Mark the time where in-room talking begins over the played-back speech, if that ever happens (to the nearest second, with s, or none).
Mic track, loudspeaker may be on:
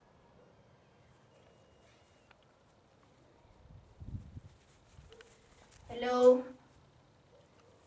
6 s